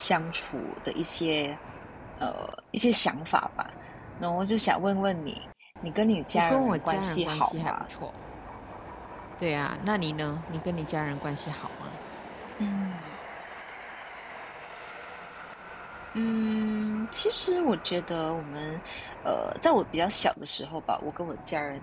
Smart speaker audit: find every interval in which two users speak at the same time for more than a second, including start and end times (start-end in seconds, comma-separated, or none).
6.3-7.8